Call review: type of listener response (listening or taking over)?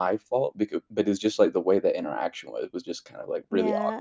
taking over